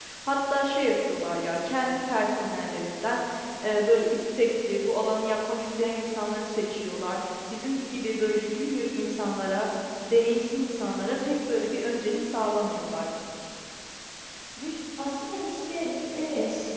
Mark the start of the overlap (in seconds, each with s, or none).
none